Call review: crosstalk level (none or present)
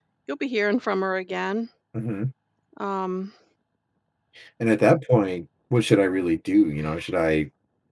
none